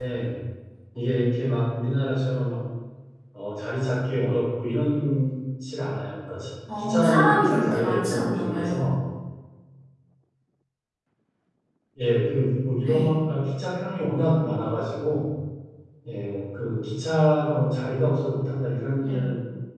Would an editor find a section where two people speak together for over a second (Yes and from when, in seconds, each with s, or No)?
Yes, from 6.8 s